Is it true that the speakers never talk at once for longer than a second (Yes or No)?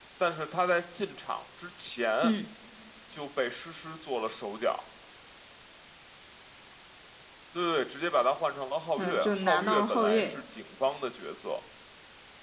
No